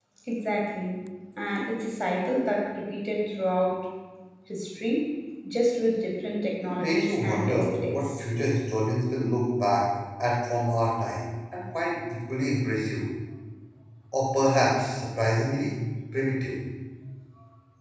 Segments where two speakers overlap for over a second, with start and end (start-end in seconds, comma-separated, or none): 6.6-8.2